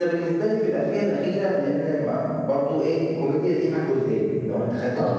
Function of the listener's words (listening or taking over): listening